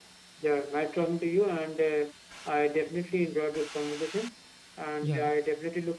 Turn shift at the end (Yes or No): No